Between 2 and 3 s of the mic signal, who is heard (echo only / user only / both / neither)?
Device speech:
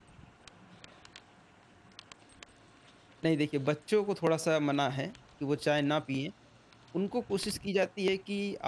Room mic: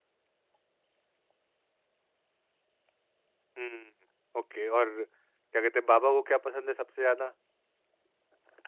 neither